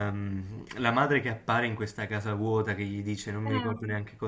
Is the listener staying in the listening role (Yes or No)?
Yes